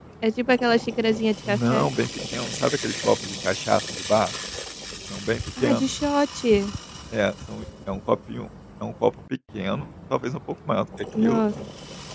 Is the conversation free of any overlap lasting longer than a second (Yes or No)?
Yes